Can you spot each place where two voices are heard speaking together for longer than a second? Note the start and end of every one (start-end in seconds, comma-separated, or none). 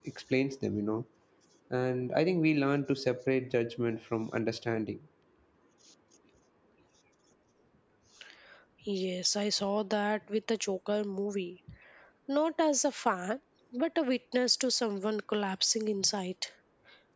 none